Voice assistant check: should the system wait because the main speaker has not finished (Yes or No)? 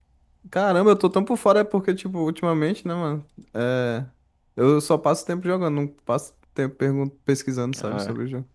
No